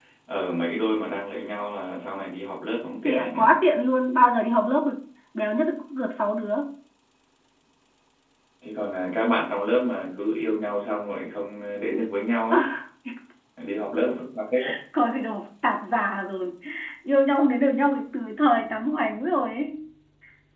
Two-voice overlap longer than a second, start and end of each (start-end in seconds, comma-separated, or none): none